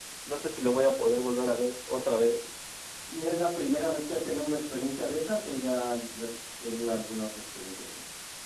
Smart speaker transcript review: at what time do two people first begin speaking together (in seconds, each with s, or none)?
none